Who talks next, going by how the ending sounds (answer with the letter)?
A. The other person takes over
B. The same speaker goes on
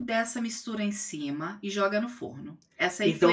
A